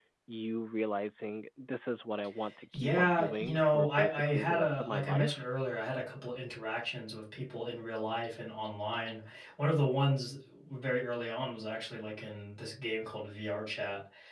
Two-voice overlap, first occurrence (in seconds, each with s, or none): 2.7 s